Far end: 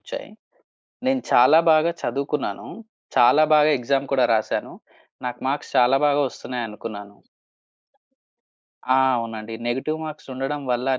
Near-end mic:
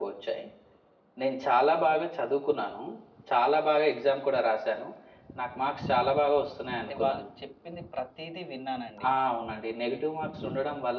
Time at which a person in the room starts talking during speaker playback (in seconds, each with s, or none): 6.8 s